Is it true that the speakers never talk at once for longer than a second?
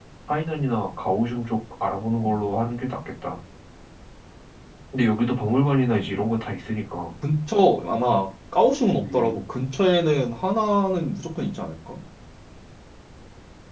Yes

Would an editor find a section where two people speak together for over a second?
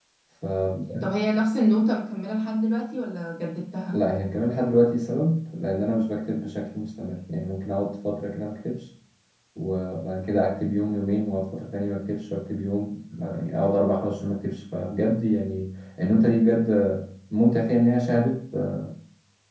No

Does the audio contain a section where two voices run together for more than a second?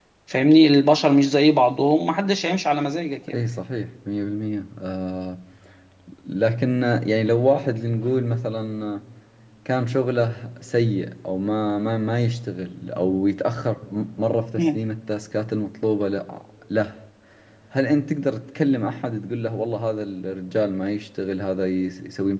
No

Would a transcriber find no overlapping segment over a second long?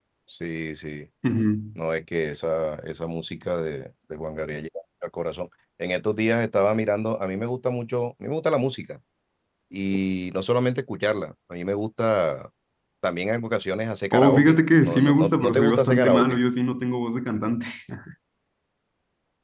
No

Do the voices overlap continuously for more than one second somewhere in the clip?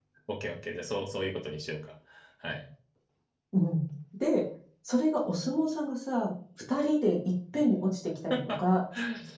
No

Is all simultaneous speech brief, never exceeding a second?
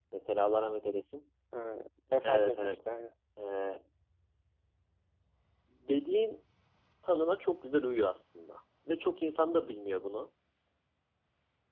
Yes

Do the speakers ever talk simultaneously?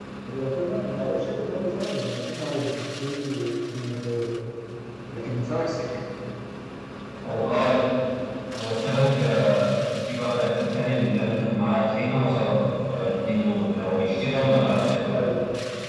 No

